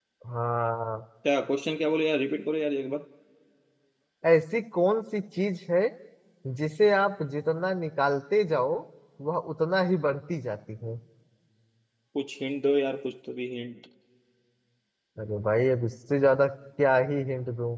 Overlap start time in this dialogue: none

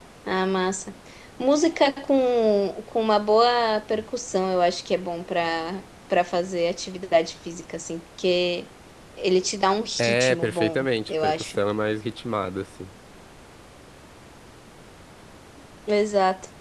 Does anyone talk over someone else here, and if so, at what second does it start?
10.0 s

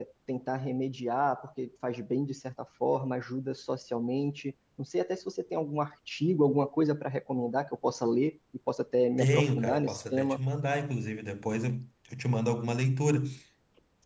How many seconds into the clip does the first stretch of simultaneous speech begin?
9.2 s

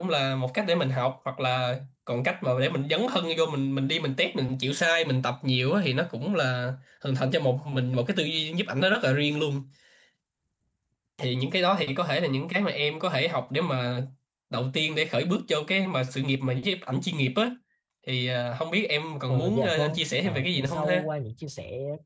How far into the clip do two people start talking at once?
19.3 s

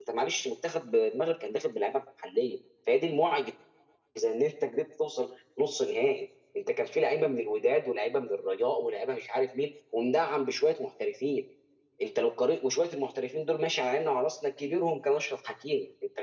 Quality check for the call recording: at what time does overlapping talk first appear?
none

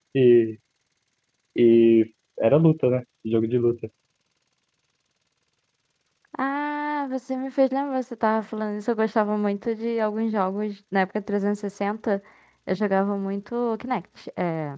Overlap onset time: none

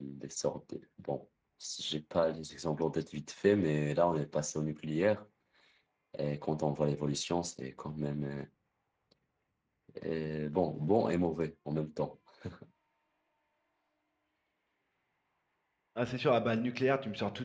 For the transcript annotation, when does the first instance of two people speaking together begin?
none

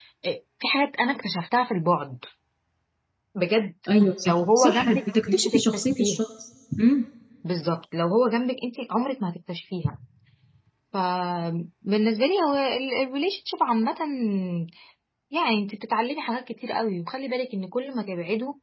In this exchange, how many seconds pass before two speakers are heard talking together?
4.3 s

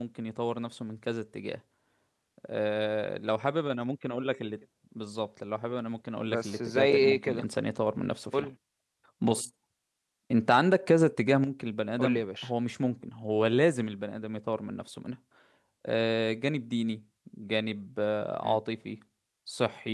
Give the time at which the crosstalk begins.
6.2 s

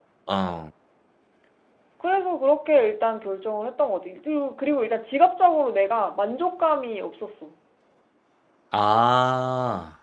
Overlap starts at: none

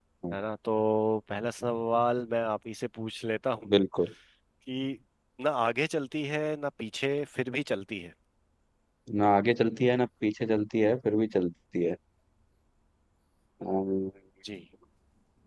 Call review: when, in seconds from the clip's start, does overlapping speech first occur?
none

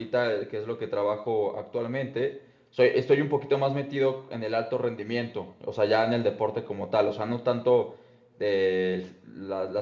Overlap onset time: none

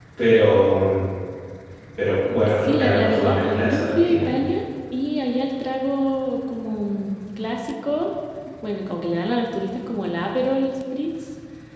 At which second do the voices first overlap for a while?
2.6 s

